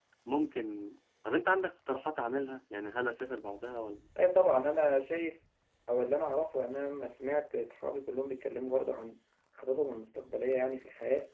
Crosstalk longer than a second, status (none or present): none